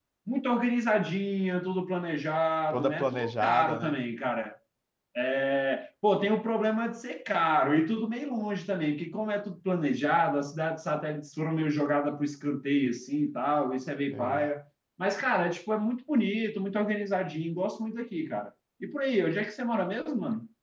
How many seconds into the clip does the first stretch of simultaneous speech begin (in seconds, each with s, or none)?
2.7 s